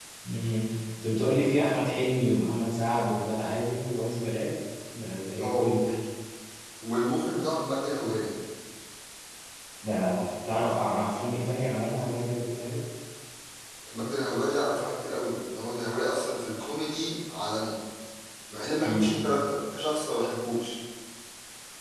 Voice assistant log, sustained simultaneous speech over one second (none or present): none